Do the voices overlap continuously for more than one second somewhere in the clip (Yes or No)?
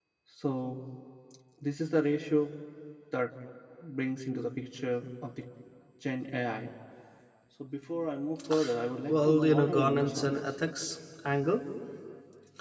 Yes